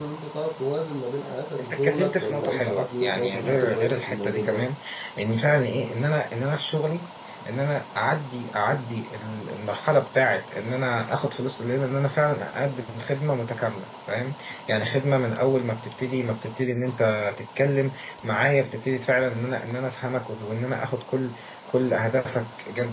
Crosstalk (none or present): present